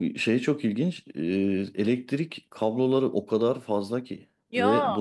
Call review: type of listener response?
listening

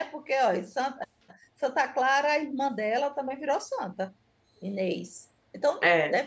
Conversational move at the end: listening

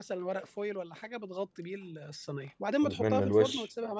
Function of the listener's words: listening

